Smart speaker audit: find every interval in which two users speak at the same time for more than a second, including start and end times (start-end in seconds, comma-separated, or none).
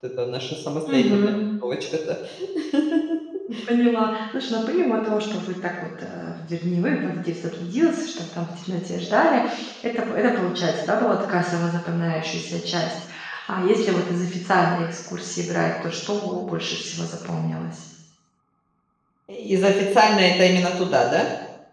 none